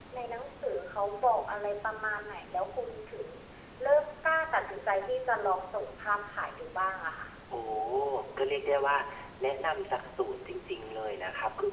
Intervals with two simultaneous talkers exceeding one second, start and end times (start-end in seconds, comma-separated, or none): none